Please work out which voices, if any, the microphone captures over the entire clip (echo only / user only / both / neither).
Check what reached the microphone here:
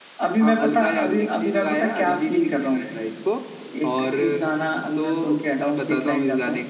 echo only